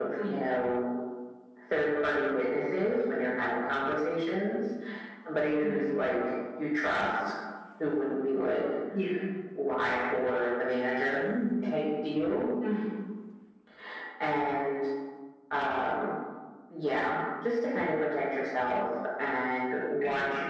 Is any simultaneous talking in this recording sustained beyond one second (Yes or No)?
No